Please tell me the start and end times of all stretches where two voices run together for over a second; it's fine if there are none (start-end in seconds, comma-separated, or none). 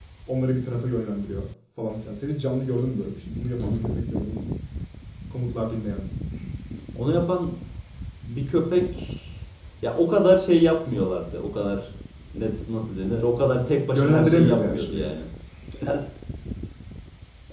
13.9-15.1